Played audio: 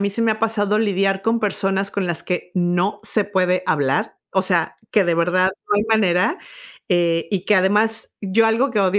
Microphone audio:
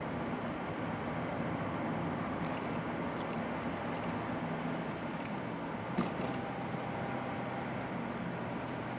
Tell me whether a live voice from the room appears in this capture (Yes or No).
No